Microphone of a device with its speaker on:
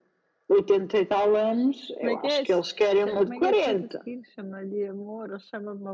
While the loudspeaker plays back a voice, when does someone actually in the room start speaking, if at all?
2.0 s

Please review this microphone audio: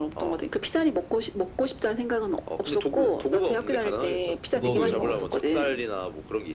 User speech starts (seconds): 4.5 s

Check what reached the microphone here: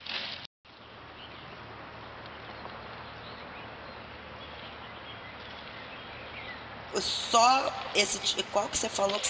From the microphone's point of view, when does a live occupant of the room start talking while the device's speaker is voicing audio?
7.0 s

